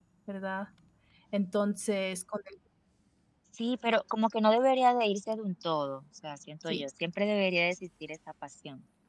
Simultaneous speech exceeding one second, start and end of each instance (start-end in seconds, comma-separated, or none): none